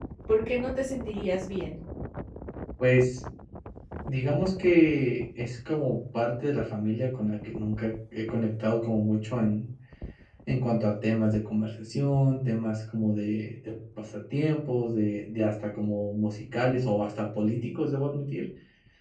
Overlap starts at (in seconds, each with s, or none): none